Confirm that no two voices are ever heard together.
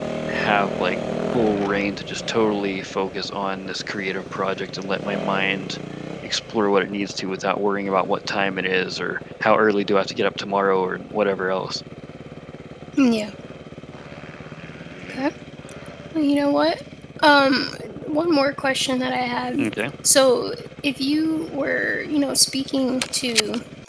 Yes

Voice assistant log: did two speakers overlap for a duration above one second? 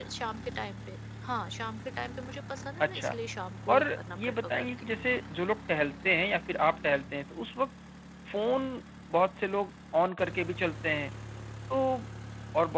Yes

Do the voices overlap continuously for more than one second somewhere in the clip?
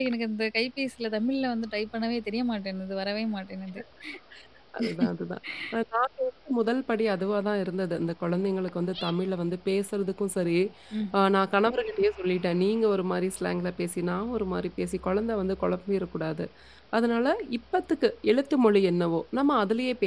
No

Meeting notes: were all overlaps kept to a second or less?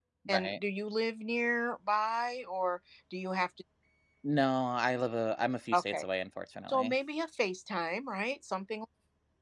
Yes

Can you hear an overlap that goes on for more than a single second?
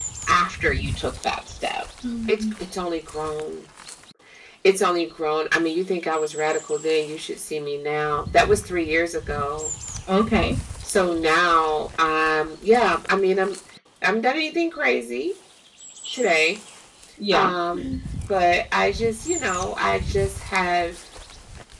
No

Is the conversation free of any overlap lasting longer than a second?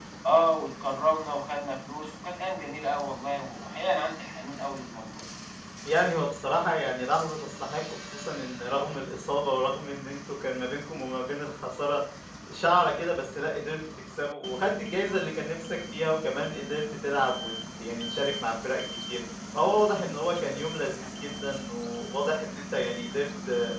Yes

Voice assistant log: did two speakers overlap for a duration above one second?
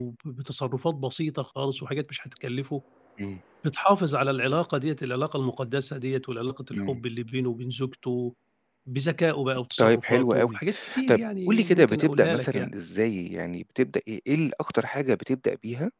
Yes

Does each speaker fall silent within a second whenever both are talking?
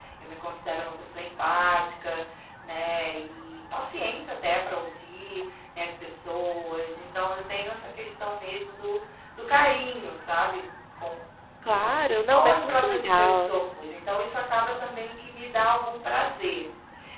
No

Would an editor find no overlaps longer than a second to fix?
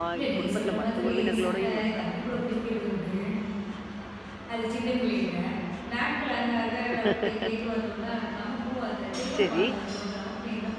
No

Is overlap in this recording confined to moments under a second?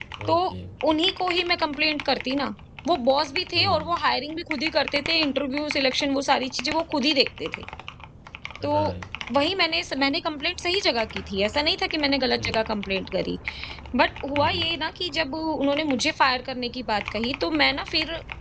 Yes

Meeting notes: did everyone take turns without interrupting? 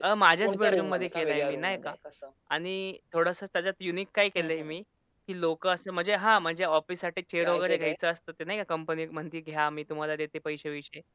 No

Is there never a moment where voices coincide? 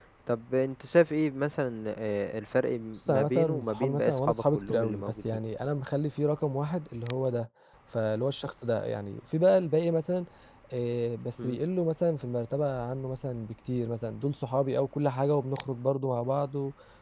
No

